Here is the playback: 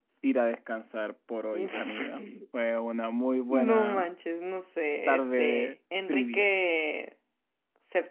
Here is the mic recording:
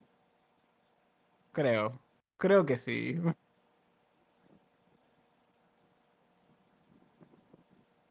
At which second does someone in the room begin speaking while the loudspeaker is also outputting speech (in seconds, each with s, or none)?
1.5 s